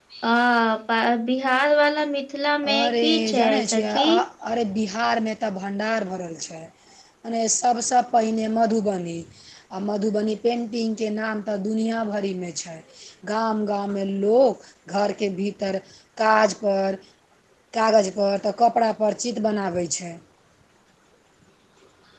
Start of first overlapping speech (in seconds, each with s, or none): 2.6 s